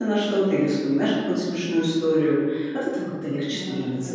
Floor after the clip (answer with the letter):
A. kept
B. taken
B